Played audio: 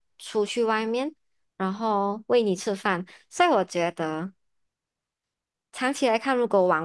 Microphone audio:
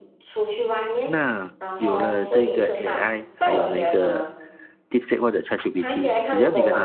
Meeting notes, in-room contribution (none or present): present